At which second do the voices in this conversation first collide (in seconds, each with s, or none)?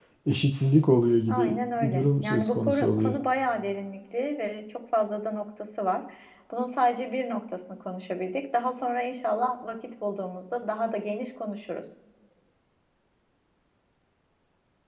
1.3 s